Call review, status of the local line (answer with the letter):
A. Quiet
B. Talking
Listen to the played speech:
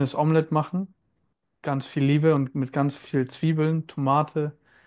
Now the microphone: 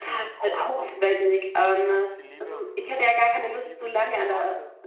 B